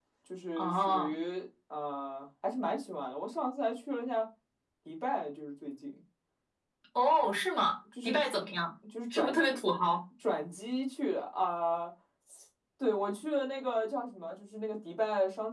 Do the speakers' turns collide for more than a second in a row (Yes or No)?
No